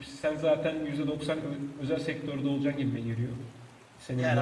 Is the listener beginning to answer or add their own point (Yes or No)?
Yes